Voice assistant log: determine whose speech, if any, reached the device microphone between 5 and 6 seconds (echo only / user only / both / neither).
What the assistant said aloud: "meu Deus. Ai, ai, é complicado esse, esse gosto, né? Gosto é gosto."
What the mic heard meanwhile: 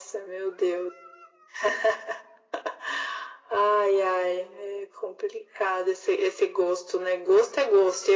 echo only